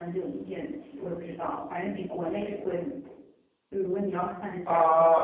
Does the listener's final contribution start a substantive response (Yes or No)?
Yes